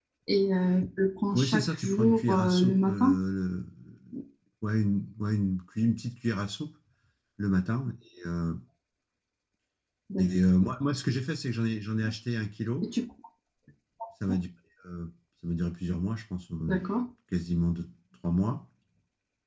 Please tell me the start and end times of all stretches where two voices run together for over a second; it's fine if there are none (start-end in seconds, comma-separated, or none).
1.3-3.2